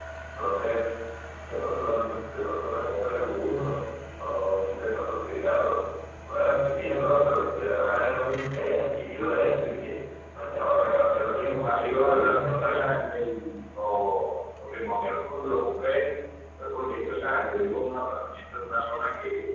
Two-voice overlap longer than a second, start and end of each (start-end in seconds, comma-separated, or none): 11.5-12.9